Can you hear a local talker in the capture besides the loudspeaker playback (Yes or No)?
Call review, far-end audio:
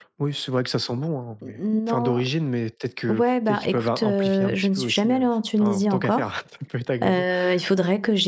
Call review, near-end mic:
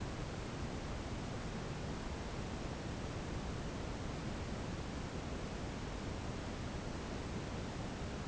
No